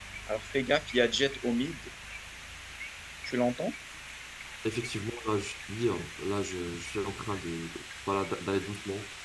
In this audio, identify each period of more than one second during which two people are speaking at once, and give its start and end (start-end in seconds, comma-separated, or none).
none